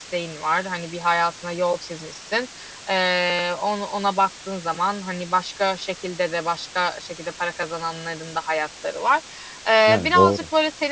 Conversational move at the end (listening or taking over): listening